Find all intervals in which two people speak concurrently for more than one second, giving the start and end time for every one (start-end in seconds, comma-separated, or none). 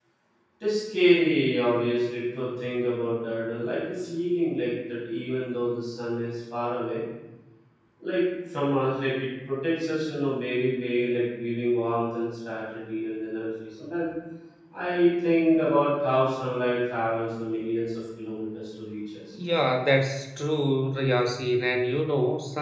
none